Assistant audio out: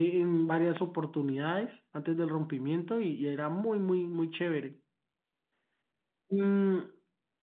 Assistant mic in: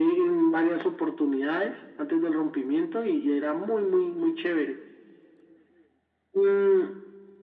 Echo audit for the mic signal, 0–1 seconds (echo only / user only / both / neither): echo only